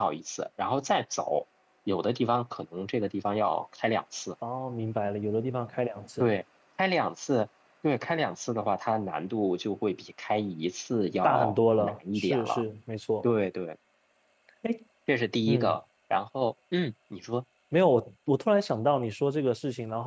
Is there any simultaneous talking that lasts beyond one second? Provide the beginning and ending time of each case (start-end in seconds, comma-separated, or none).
11.2-12.6